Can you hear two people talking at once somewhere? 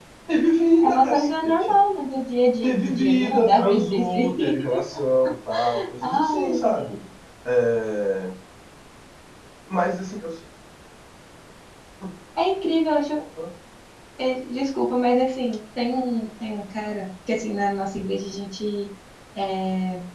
Yes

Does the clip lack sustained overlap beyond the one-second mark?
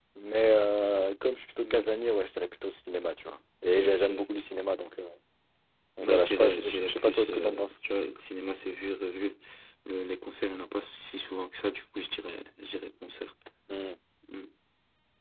No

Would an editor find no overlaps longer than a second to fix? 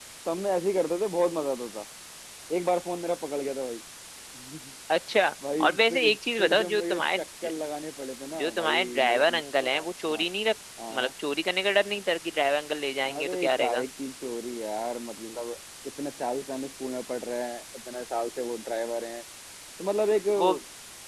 No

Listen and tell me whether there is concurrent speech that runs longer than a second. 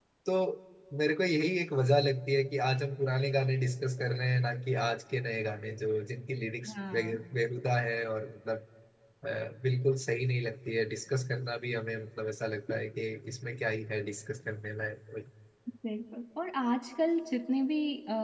No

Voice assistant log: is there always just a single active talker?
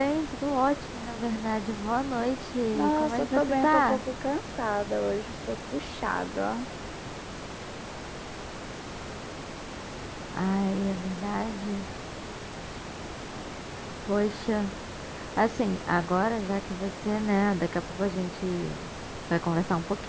No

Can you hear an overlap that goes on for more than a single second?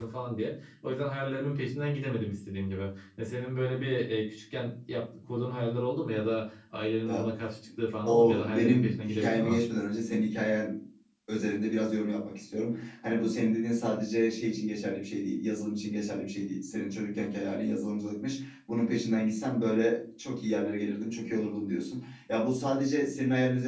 Yes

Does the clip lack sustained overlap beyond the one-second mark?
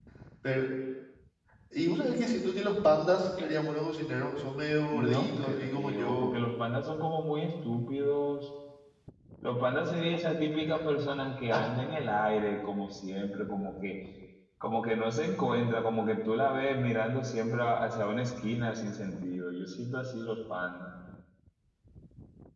No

